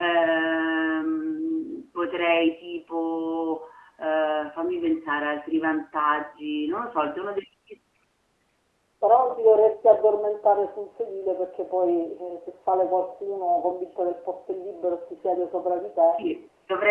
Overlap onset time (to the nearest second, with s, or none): none